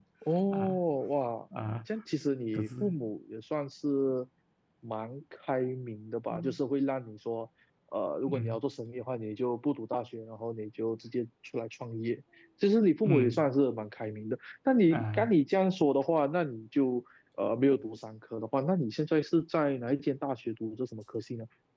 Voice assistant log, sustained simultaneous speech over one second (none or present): none